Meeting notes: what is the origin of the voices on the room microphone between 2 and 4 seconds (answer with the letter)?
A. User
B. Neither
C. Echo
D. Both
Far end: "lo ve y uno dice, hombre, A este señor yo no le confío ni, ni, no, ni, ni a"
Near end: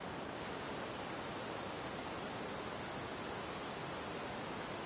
B